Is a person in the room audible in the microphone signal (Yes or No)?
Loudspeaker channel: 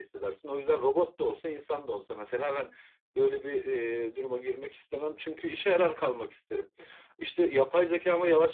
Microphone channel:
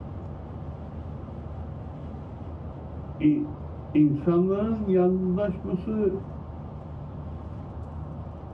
Yes